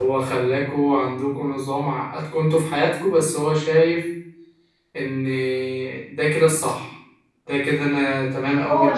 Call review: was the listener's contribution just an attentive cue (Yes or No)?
No